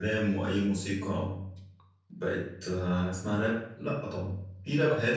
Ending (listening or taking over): listening